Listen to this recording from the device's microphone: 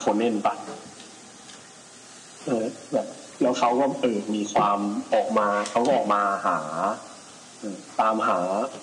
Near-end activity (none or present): none